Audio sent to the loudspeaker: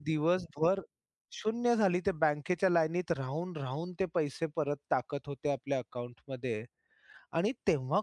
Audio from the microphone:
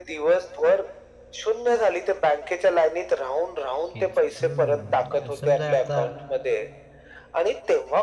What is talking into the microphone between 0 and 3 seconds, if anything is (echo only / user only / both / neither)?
echo only